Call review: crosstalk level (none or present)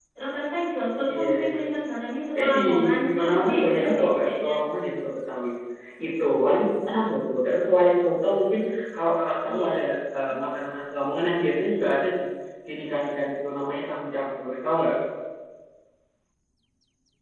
present